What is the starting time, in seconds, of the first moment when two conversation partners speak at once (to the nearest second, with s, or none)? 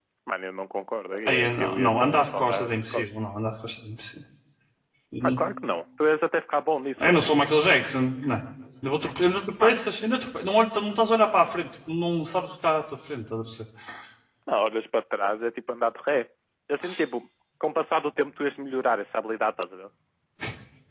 1 s